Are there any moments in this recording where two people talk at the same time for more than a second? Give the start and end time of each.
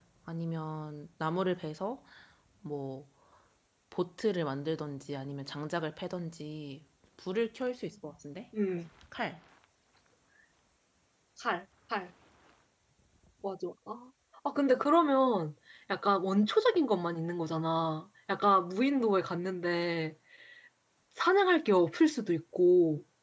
none

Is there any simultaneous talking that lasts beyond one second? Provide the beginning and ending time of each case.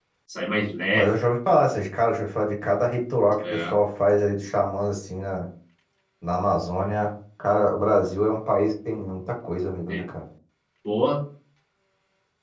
none

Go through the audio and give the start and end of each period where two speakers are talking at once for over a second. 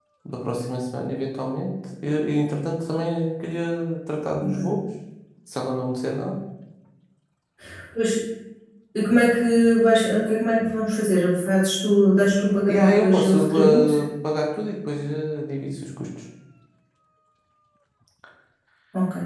12.7-13.9

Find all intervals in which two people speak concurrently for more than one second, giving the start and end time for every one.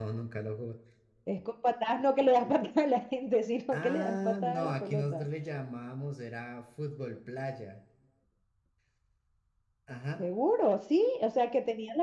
3.7-5.3

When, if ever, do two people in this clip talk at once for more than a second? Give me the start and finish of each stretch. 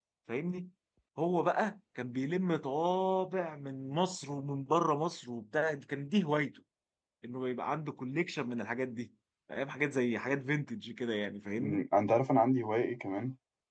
none

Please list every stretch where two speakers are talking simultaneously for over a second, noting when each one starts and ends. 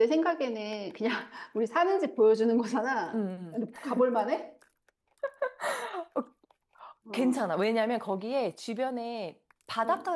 none

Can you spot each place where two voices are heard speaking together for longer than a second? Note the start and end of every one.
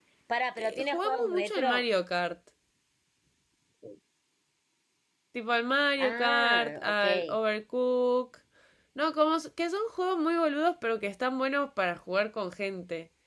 0.6-1.8, 6.0-7.4

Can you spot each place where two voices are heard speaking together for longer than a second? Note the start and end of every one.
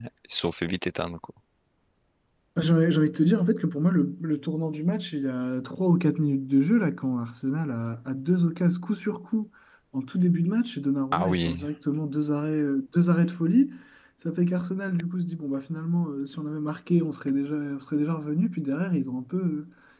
none

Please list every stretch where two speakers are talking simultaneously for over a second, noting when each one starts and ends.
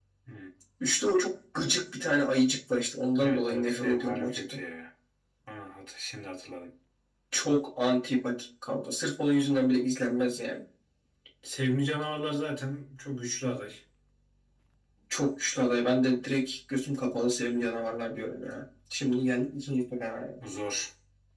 3.2-4.6

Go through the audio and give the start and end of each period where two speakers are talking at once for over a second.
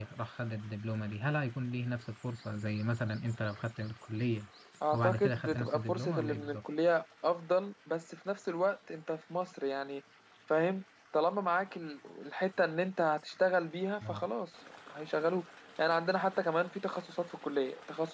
4.9-6.6

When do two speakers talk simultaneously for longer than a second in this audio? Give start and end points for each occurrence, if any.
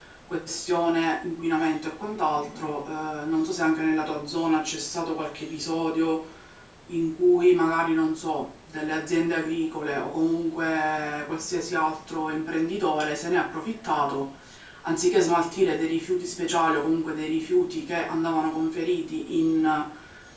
none

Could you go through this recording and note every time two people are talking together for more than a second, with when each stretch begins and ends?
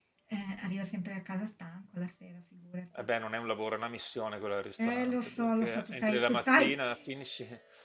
4.8-6.7

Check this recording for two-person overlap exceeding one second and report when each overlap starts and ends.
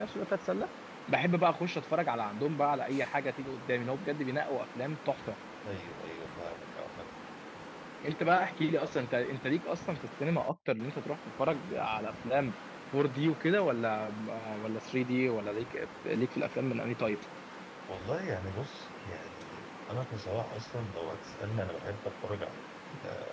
none

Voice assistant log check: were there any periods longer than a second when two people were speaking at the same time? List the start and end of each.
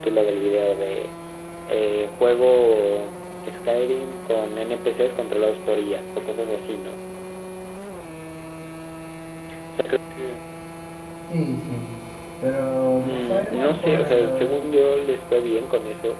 13.0-14.6

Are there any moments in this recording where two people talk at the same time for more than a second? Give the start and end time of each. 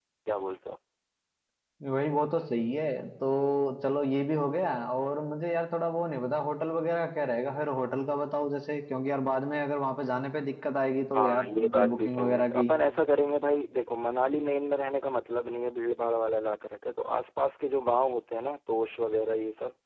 11.2-12.7

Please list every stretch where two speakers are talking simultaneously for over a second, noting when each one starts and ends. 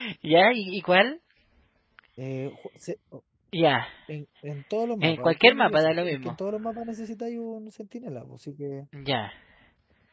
5.1-6.4

